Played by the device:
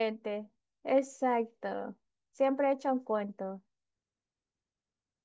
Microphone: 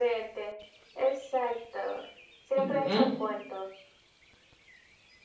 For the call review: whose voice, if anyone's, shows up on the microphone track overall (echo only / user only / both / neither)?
both